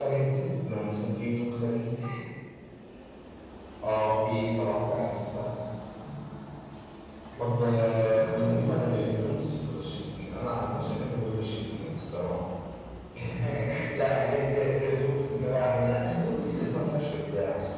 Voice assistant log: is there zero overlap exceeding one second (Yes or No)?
No